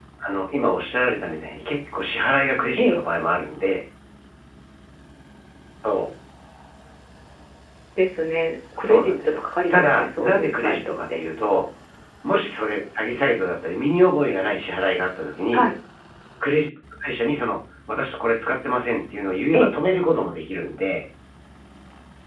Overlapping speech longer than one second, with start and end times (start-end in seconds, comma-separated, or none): 8.8-11.2